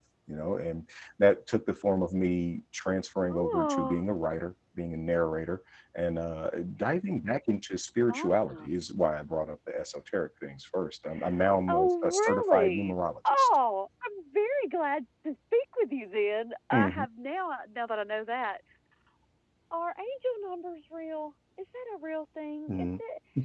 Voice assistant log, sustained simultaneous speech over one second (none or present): present